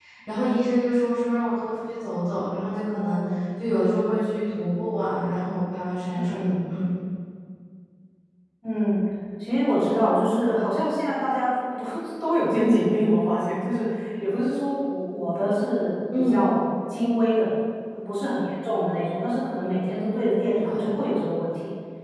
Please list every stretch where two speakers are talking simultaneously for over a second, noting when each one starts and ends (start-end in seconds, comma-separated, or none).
none